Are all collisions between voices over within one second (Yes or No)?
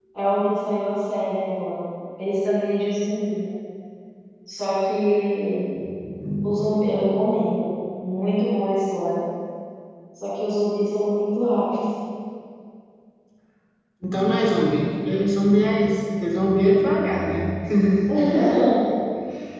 Yes